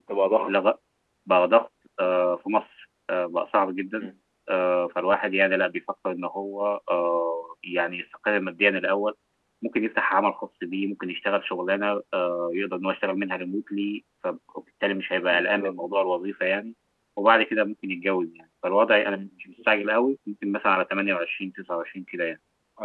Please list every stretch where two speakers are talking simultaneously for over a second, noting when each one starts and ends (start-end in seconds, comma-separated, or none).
none